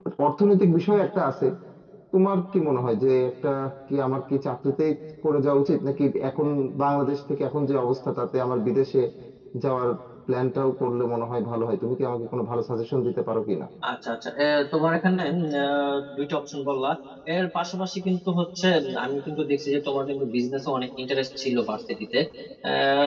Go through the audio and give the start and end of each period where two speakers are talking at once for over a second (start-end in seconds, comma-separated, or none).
none